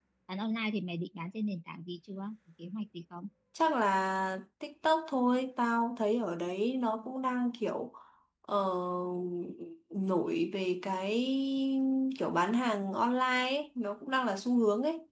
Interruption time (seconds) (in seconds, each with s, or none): none